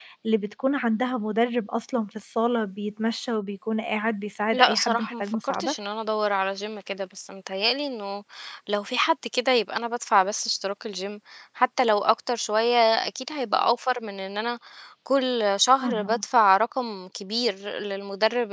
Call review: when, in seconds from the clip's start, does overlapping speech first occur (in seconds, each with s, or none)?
4.5 s